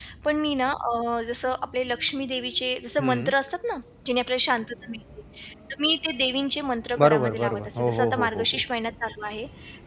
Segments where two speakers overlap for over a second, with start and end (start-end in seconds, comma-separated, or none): 7.0-8.6